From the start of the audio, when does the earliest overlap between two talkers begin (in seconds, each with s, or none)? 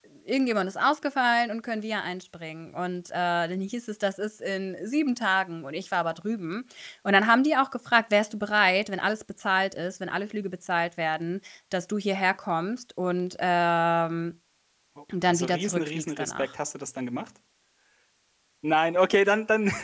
15.3 s